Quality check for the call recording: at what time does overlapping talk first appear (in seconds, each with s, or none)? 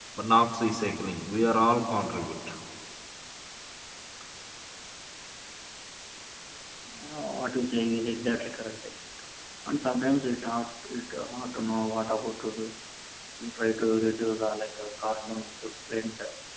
none